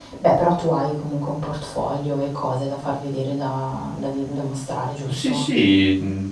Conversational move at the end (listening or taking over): taking over